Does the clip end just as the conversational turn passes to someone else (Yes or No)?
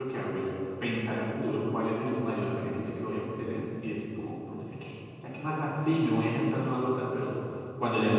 No